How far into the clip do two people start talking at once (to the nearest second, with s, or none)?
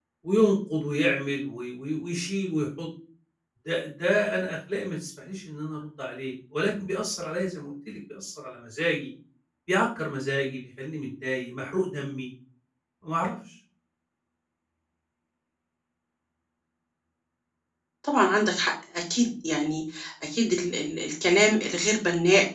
none